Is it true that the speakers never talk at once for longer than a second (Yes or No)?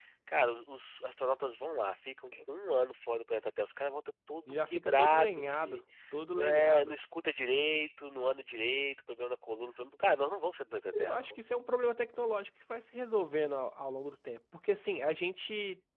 No